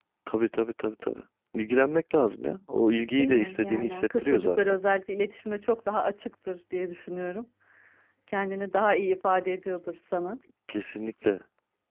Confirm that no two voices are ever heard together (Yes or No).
No